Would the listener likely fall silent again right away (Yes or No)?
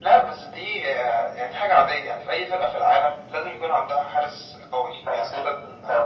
No